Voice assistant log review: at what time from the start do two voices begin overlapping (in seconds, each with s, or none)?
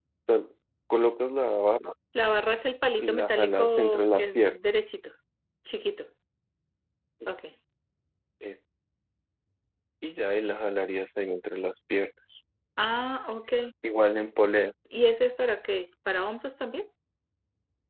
3.0 s